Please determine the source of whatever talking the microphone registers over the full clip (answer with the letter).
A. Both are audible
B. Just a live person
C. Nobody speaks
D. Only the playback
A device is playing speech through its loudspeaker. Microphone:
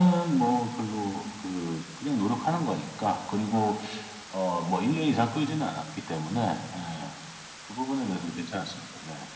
D